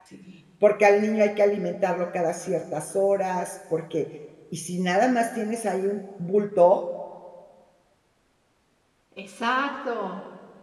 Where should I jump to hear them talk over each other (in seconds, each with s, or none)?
none